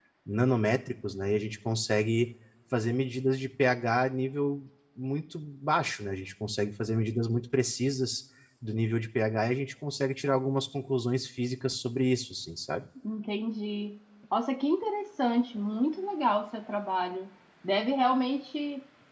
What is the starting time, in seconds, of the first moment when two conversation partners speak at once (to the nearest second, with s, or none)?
none